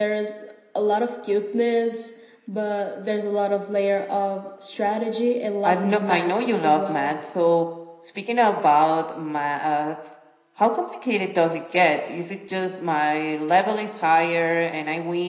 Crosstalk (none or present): present